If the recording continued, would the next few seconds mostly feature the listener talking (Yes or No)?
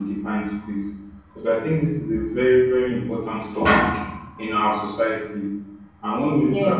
No